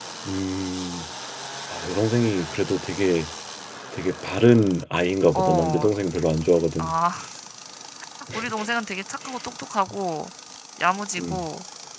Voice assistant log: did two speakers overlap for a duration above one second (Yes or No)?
No